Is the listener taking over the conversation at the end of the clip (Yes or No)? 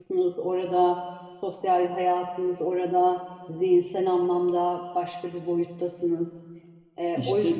Yes